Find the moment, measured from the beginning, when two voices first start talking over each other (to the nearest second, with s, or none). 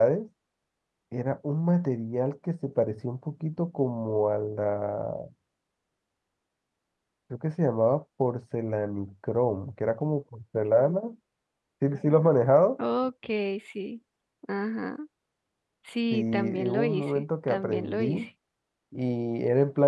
16 s